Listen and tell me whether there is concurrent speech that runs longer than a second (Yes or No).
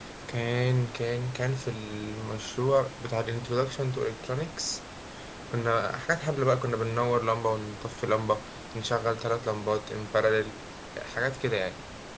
No